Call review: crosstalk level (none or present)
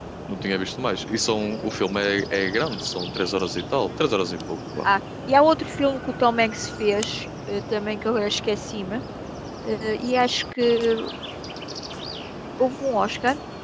none